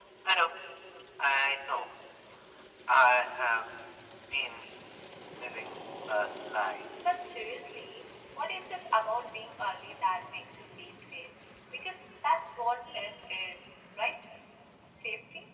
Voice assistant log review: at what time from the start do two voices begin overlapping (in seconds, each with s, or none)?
none